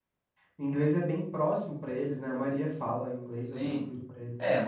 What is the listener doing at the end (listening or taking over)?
taking over